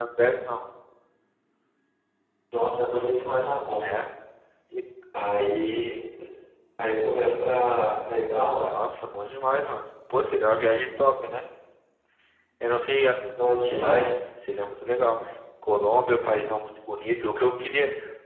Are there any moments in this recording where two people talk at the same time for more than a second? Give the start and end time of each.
none

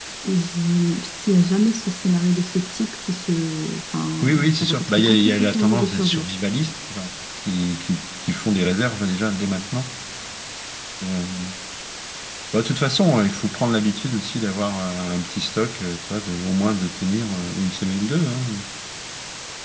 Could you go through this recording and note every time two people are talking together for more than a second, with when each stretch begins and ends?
4.2-6.2

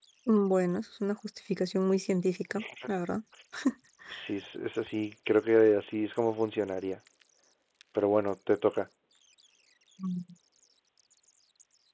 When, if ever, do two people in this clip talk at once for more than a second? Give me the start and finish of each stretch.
none

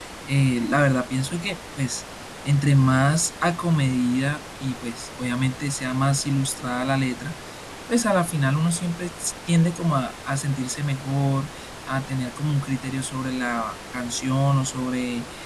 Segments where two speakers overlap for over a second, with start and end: none

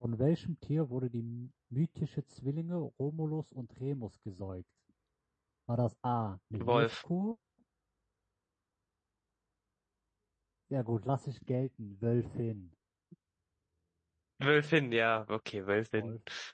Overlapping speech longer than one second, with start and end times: none

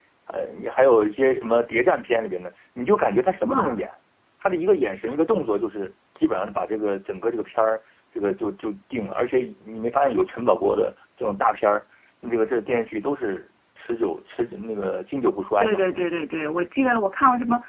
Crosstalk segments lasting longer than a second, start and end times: none

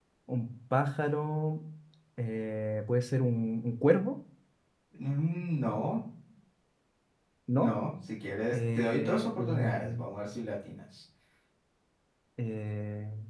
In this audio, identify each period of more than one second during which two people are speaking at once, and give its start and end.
8.5-10.1

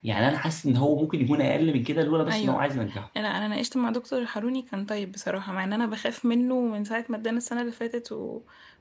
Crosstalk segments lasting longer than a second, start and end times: none

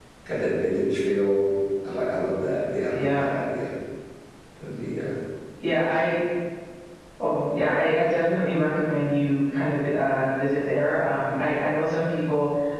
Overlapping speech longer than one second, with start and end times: none

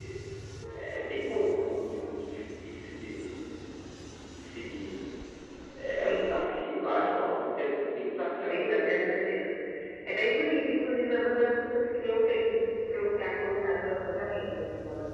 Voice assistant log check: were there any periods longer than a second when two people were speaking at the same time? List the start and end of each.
6.0-7.5

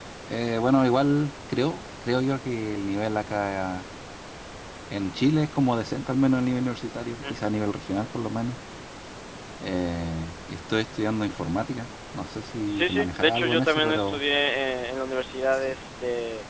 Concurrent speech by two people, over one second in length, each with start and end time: 12.7-14.2

